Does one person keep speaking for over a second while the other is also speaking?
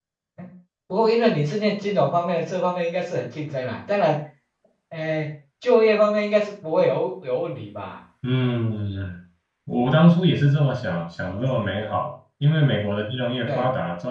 No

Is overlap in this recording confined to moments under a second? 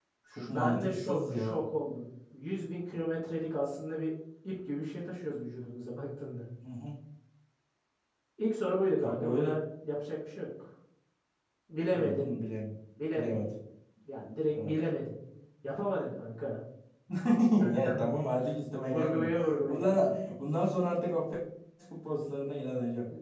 No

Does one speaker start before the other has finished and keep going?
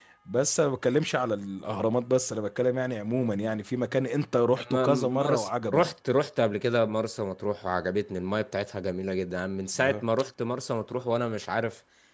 Yes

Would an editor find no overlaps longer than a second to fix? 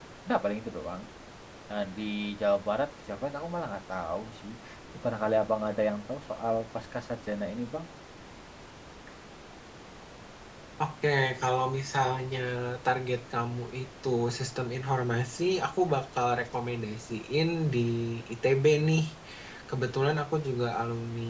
Yes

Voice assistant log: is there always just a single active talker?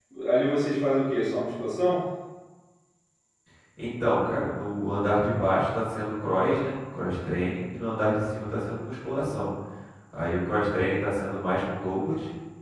Yes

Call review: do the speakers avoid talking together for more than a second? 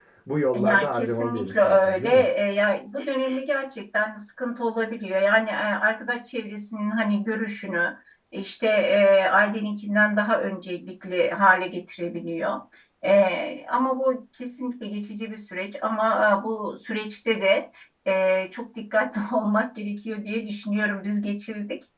No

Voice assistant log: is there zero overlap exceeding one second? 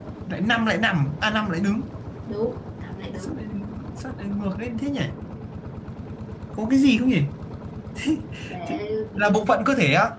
Yes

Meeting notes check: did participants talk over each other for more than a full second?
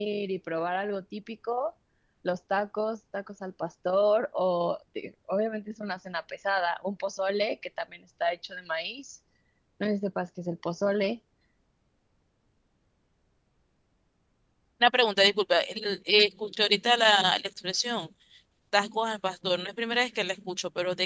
No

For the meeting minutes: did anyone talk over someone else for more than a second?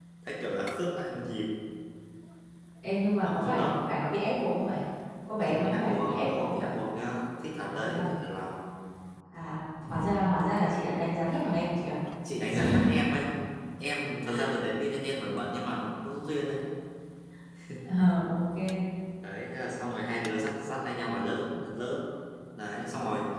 Yes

